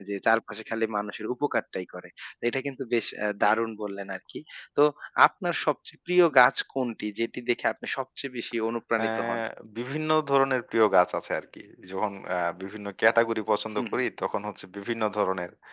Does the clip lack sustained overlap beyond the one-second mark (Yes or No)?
Yes